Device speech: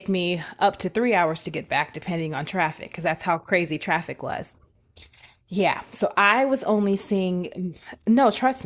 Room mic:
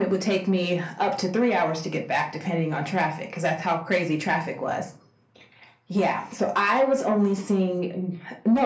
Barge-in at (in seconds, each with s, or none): none